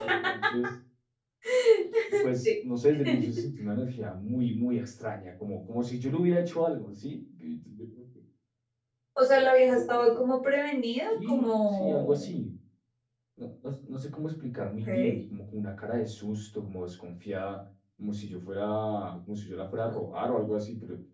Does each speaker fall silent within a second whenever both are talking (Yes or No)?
No